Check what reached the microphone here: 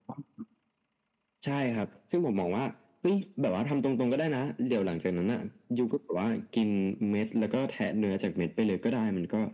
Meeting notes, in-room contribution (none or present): none